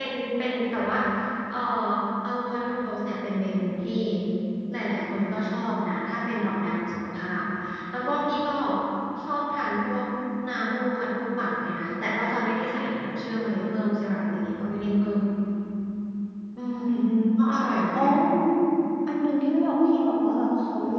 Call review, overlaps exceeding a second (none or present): none